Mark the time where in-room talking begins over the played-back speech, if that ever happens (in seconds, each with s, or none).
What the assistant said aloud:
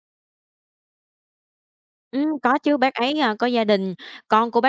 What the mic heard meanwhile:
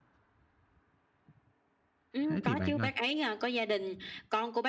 2.3 s